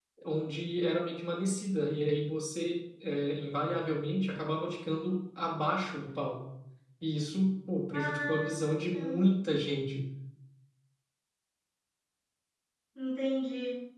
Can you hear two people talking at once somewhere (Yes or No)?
Yes